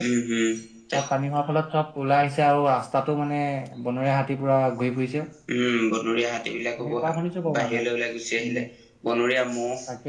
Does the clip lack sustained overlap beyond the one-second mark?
Yes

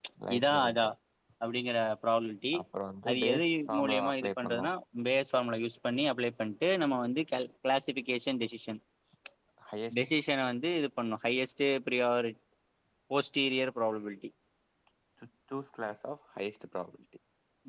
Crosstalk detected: Yes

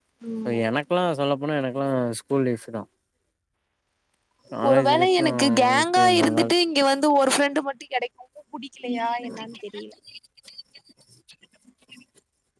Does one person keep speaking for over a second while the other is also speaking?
Yes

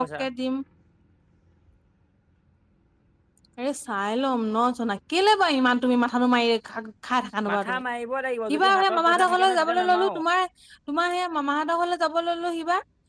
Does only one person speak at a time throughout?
No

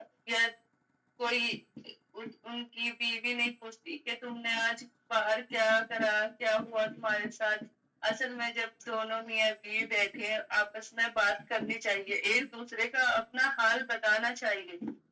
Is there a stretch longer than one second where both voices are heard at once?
No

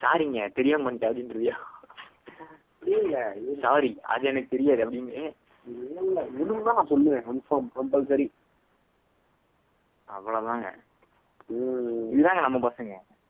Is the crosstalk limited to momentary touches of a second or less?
Yes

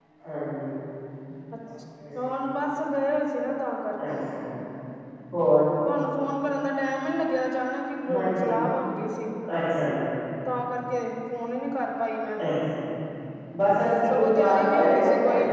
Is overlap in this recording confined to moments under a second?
No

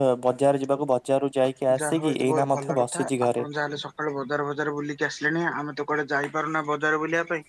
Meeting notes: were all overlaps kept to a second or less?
No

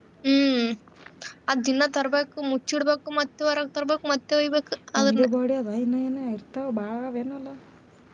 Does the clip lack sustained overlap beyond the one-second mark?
Yes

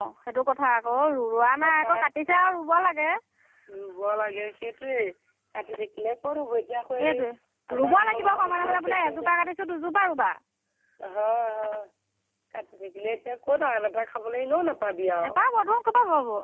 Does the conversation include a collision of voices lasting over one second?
Yes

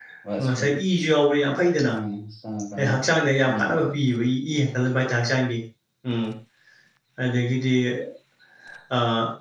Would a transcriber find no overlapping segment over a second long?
Yes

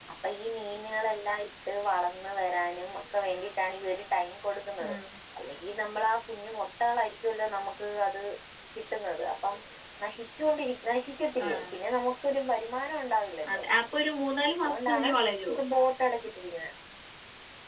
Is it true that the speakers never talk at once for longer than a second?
Yes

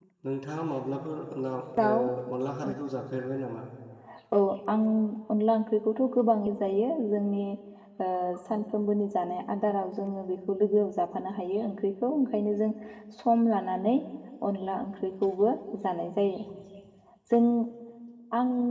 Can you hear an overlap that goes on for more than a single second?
No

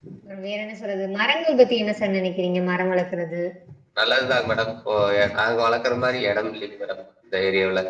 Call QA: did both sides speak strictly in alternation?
Yes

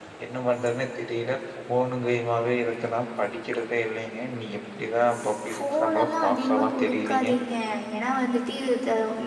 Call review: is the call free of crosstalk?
No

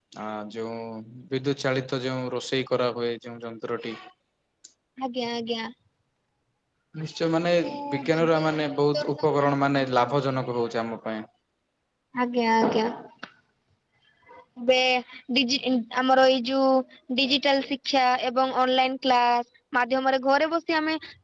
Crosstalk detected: Yes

